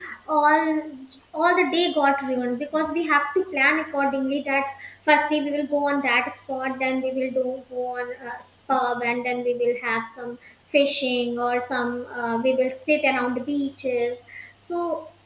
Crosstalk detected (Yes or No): No